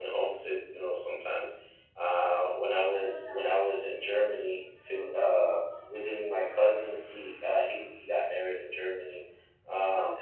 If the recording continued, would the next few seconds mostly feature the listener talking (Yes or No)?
No